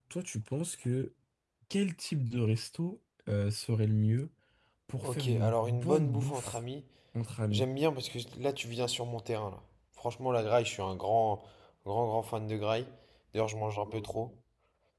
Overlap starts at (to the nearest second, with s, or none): 5 s